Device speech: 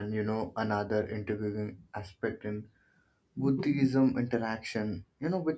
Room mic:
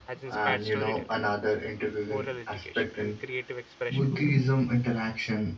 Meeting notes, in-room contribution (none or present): present